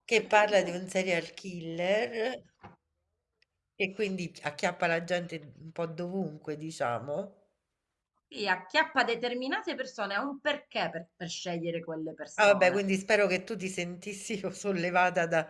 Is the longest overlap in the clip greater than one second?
No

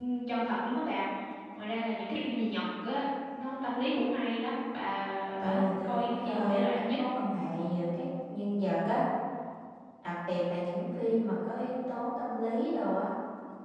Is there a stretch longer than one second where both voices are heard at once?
Yes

